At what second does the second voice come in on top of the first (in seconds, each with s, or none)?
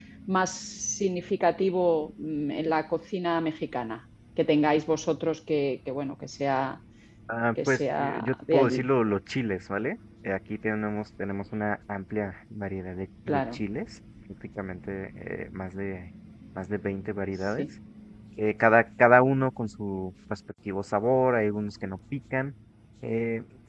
7.7 s